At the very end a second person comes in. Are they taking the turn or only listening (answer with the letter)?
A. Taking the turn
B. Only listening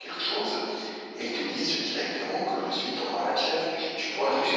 B